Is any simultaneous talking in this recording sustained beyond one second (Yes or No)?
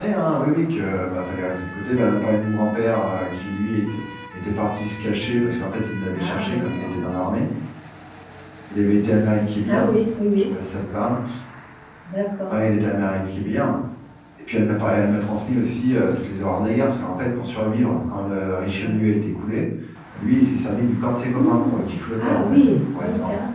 Yes